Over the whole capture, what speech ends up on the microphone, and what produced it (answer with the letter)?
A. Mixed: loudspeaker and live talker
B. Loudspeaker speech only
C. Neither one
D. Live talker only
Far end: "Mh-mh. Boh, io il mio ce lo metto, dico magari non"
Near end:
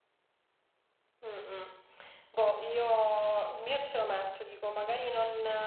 B